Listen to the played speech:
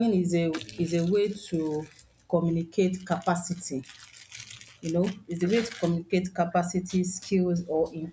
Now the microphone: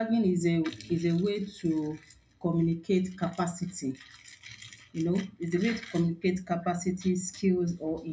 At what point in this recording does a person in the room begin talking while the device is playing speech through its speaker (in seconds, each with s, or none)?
none